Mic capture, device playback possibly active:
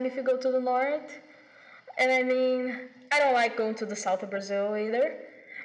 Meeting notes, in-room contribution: none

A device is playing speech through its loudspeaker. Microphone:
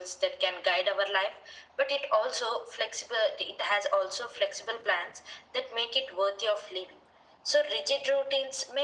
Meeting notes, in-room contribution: none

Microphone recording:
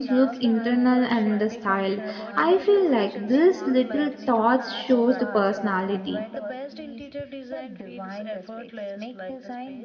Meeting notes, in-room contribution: present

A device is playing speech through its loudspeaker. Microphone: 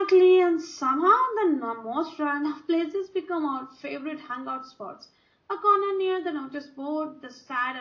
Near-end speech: none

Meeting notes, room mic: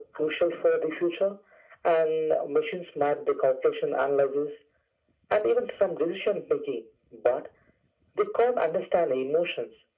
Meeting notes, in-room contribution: none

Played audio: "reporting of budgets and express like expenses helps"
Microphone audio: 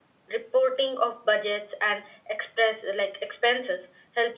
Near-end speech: none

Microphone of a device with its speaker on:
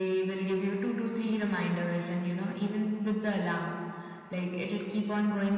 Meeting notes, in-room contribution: none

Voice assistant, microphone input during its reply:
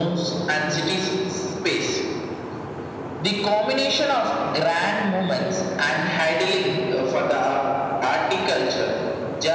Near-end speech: none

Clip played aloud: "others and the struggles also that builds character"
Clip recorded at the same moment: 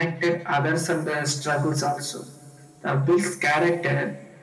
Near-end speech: none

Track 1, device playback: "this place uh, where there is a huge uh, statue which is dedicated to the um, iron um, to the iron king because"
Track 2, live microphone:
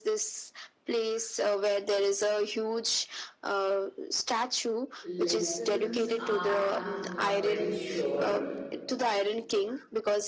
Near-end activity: present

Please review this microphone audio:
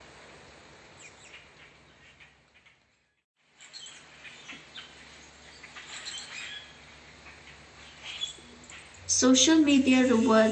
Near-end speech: present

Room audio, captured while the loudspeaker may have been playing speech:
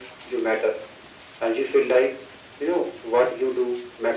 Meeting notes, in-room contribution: none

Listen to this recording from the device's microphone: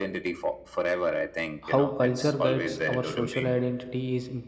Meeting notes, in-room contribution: present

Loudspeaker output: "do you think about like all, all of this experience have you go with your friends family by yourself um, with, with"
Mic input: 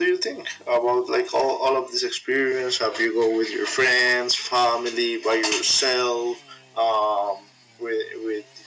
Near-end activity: none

